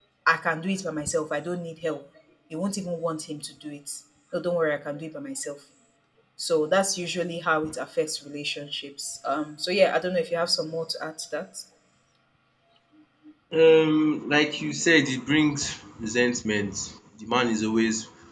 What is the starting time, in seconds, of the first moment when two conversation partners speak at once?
none

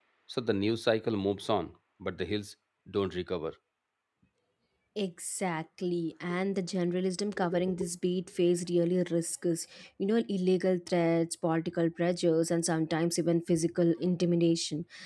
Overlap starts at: none

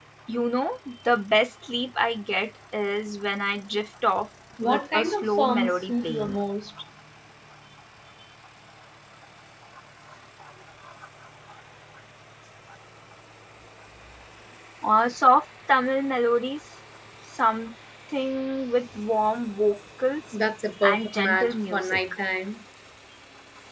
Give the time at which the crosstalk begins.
5 s

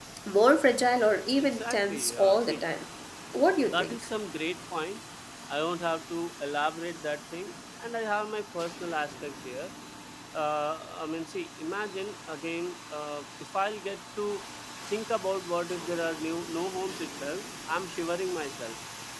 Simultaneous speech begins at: 1 s

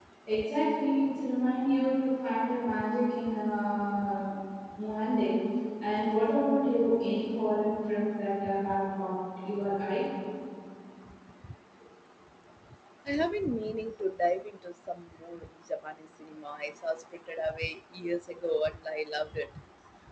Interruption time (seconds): none

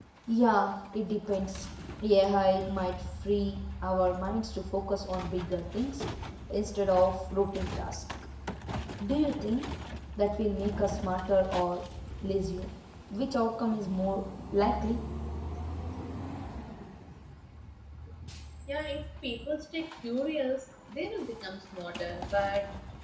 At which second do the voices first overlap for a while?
none

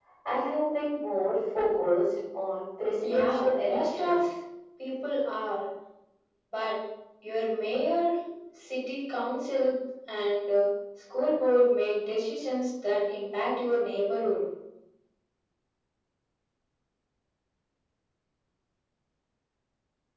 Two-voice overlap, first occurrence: 3 s

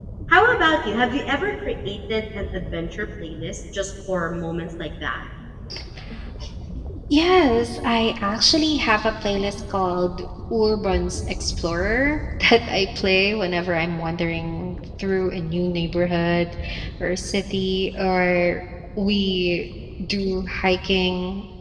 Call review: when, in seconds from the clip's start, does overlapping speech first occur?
none

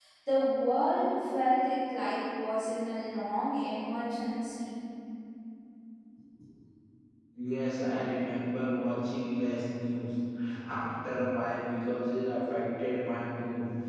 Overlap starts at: none

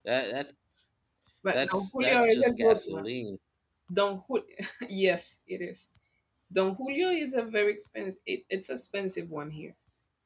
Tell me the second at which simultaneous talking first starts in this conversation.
2 s

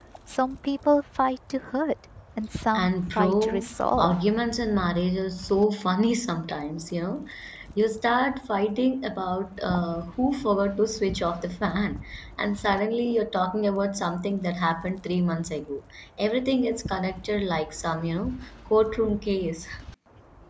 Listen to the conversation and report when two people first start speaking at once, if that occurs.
3 s

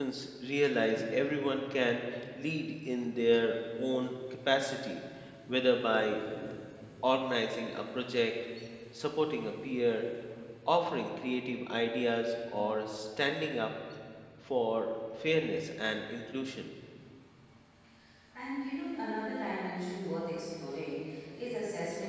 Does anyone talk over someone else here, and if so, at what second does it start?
none

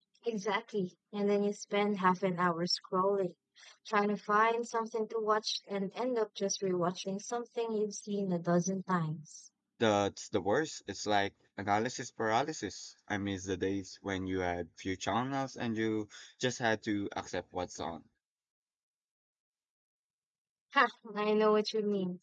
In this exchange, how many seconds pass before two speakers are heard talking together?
none

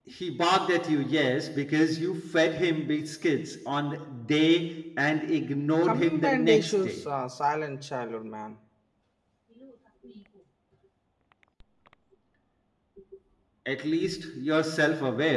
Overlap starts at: 6 s

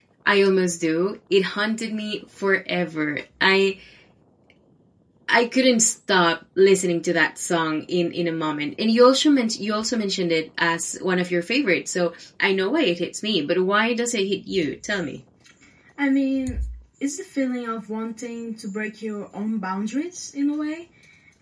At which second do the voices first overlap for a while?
none

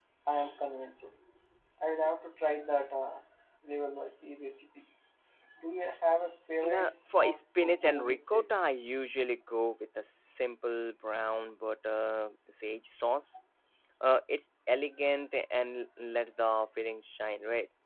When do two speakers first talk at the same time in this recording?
7 s

